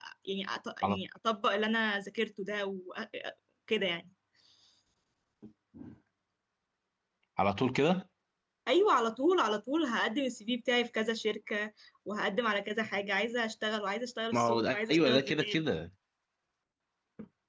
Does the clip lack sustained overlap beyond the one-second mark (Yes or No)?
No